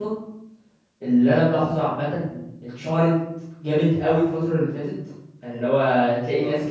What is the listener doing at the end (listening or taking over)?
listening